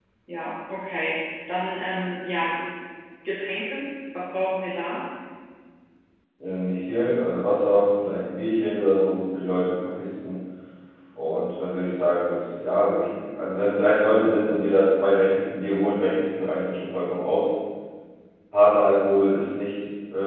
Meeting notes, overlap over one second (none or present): none